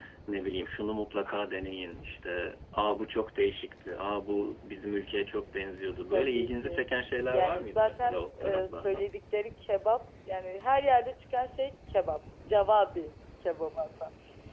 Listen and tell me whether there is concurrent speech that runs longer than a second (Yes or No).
Yes